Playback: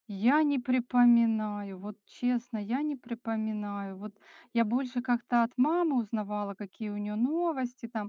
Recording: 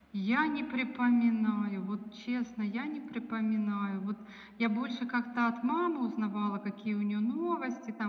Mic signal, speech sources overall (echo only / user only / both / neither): echo only